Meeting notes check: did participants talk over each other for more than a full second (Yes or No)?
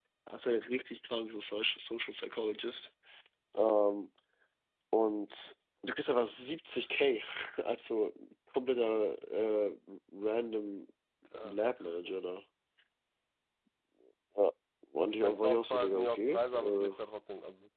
Yes